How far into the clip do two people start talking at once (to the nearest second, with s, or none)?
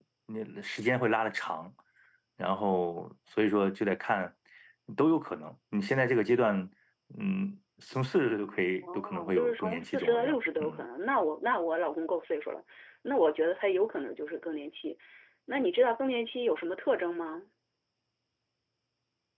9 s